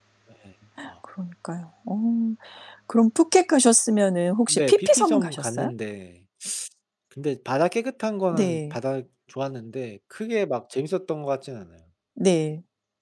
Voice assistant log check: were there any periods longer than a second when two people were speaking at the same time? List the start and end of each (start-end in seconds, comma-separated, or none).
4.5-5.7